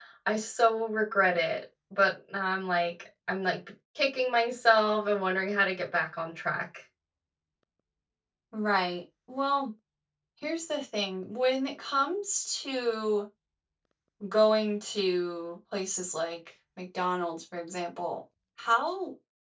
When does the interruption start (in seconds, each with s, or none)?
none